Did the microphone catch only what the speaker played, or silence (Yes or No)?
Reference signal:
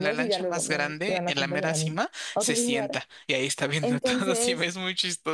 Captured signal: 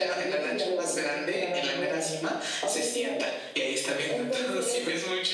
Yes